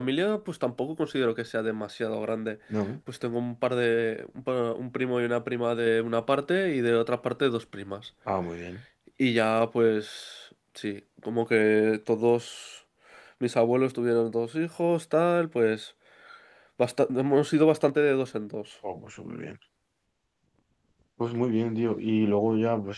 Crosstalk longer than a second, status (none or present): none